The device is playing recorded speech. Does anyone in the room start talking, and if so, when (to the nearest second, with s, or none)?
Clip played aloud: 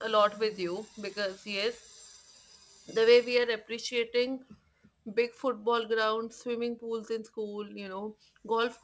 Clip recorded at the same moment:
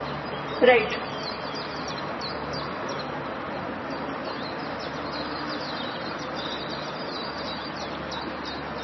1 s